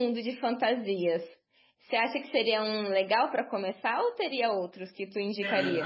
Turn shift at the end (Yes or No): Yes